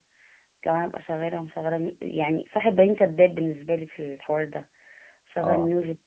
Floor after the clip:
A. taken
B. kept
B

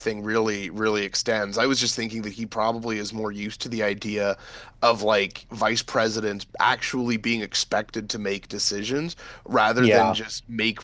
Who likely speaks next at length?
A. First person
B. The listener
A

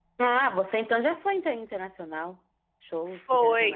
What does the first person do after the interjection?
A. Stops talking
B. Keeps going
A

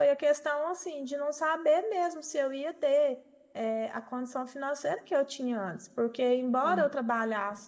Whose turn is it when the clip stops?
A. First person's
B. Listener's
A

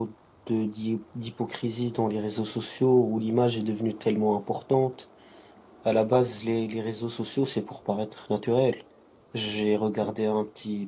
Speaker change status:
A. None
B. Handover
A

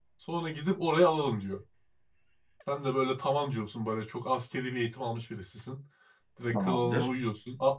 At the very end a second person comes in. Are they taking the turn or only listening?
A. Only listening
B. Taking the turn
A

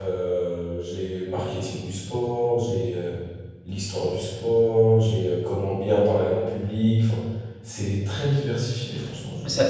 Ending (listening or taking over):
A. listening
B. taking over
B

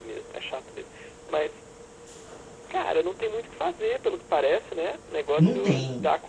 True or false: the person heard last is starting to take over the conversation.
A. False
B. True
A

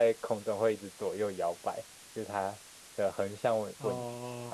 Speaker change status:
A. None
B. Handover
B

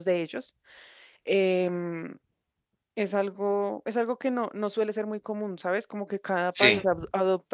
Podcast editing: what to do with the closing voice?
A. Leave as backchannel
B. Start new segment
A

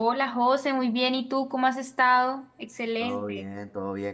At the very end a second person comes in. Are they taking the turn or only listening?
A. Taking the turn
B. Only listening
A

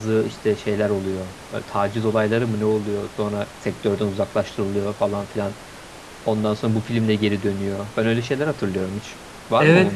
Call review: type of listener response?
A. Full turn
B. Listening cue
A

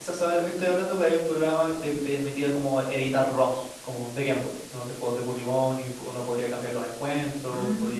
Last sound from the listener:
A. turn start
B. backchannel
A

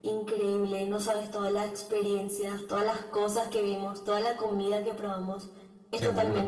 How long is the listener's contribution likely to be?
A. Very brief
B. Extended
A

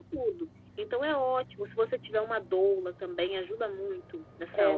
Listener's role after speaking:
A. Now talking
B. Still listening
A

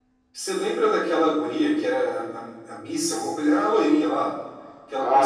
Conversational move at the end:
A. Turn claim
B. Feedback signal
A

